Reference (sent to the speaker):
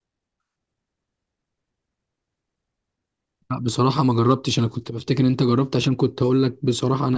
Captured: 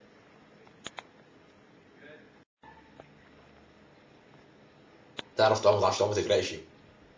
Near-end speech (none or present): present